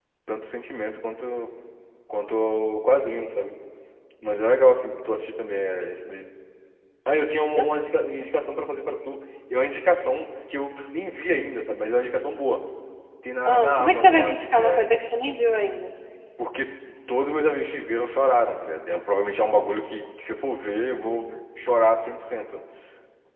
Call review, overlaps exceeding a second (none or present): present